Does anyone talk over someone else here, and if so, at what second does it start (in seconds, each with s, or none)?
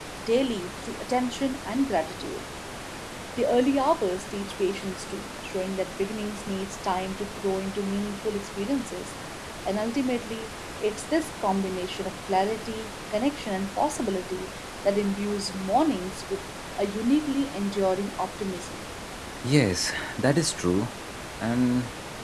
none